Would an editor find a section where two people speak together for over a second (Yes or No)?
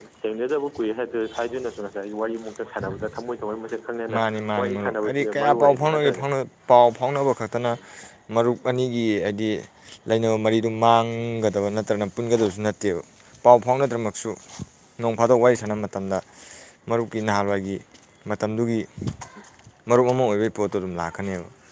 Yes